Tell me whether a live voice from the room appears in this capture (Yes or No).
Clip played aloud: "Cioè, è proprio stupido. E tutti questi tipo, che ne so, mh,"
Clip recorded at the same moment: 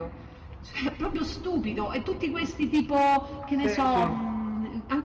Yes